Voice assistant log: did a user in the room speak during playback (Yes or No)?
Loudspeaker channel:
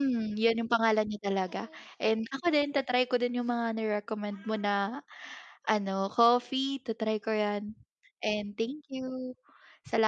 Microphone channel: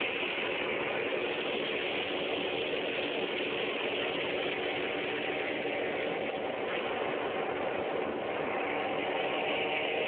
No